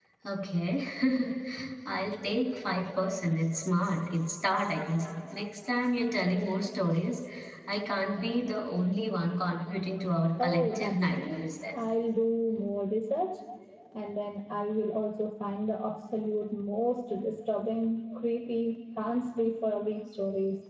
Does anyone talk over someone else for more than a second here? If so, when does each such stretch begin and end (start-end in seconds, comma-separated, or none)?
10.4-11.8